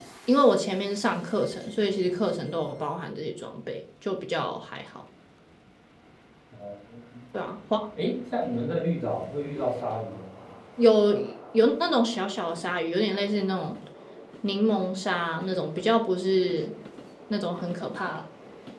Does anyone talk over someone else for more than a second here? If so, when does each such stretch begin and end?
none

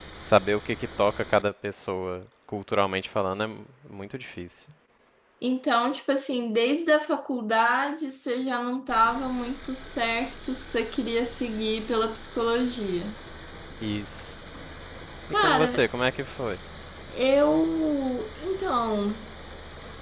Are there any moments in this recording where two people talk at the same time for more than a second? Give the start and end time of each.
none

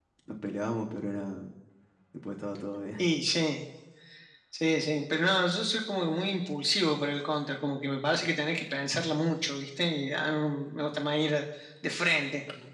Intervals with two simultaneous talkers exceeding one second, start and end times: none

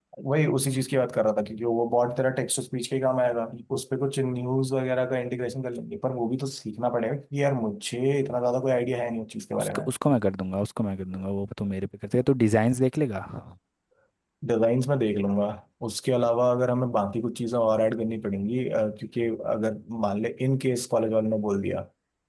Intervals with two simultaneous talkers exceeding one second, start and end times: none

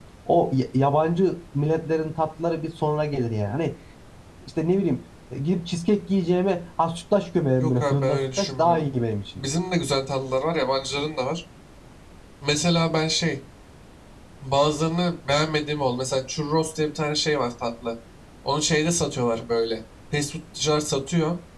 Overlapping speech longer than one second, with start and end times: 7.6-8.8

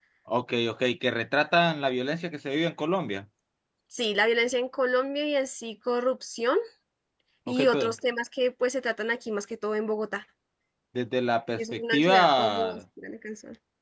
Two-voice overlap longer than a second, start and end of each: 11.6-12.8

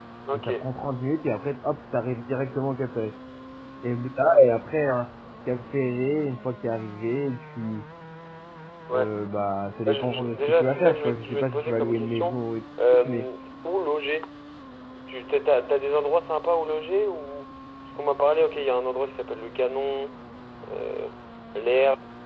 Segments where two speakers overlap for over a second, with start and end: 9.8-12.4

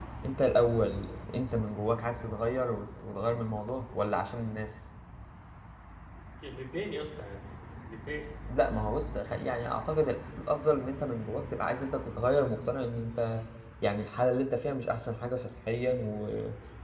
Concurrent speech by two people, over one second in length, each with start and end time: none

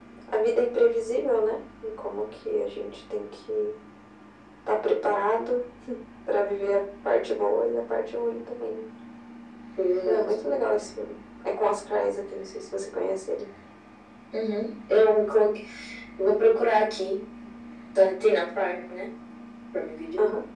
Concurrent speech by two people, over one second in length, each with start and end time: none

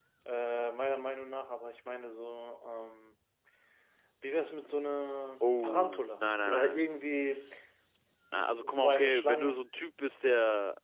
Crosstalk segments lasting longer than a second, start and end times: 5.4-6.9, 8.3-9.6

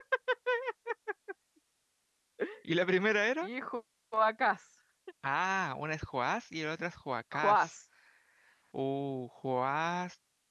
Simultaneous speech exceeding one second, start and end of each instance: none

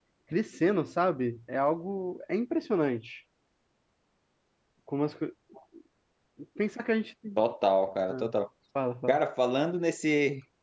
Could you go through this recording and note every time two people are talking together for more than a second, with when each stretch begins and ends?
none

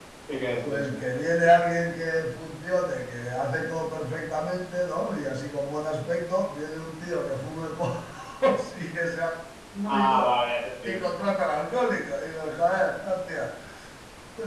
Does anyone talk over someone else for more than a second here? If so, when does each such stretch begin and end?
none

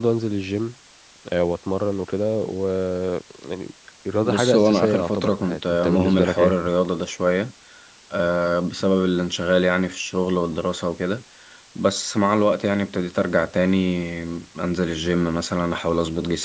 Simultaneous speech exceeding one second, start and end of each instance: 4.2-6.5

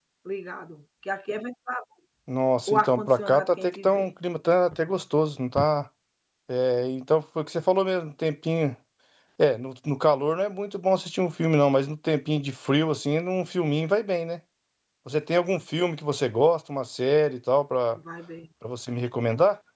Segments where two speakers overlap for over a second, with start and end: 2.7-4.1

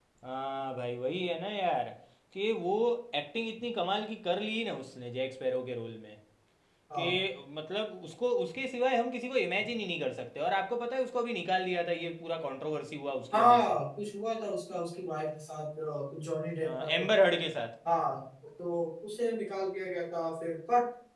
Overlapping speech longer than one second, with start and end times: none

